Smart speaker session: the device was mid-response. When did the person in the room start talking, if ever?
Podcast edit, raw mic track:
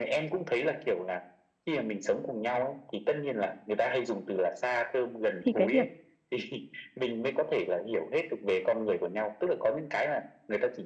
5.4 s

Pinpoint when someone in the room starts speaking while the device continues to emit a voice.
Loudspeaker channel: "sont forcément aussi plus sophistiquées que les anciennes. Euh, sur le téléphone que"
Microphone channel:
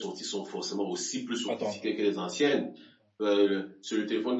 1.5 s

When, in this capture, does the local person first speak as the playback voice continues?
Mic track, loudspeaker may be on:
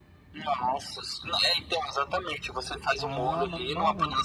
3.0 s

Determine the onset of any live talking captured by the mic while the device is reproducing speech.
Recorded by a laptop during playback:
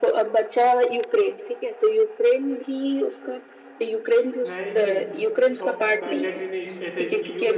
4.5 s

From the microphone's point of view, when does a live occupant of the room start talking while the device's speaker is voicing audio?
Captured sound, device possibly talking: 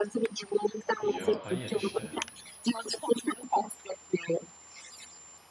1.0 s

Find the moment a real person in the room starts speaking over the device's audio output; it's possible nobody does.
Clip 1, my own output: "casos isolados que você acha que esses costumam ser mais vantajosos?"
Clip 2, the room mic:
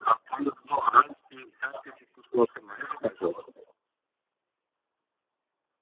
none

